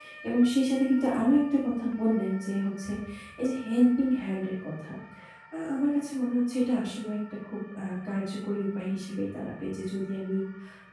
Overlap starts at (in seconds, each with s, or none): none